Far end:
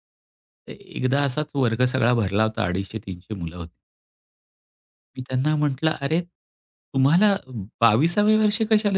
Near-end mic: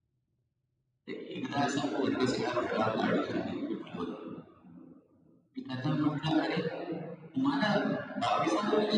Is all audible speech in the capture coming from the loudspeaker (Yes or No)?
Yes